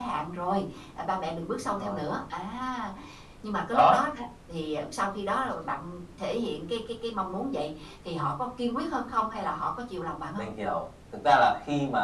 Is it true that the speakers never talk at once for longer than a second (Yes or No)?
Yes